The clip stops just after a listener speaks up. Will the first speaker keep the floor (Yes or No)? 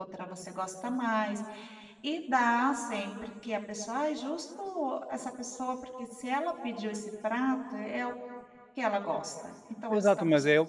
No